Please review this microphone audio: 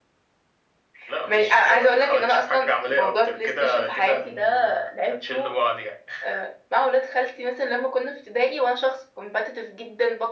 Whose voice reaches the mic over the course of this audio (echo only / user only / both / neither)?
echo only